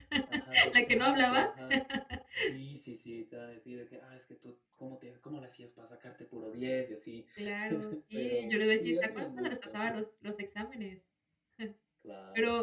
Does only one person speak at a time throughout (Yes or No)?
No